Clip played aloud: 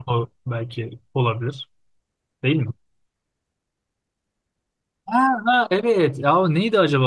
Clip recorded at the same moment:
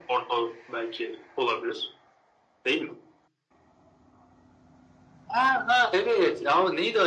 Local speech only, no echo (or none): none